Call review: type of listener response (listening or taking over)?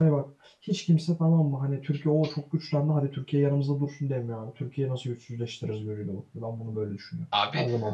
taking over